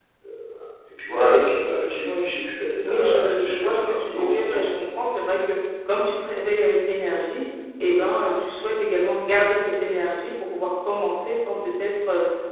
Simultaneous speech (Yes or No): Yes